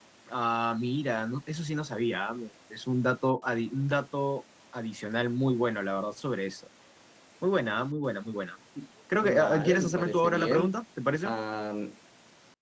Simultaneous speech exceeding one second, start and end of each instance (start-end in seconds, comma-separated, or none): 9.2-10.7